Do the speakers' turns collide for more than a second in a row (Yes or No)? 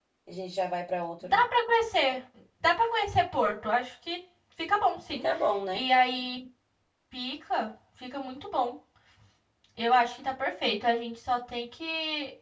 No